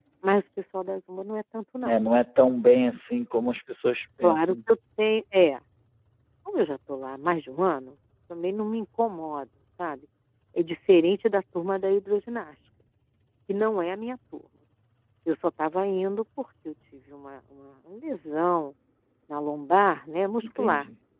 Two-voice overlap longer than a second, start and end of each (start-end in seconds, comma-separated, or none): none